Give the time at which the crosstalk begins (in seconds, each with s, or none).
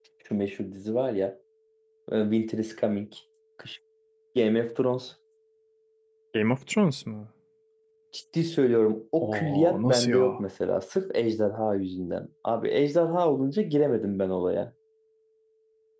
9.2 s